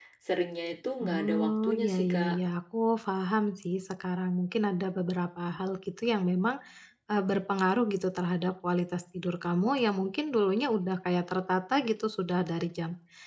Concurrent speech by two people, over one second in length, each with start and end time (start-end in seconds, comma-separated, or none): 1.0-2.4